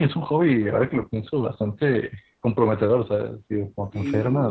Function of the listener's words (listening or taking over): listening